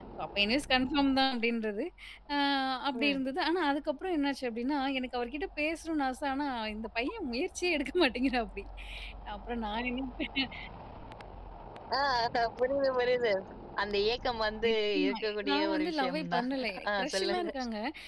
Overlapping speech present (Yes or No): Yes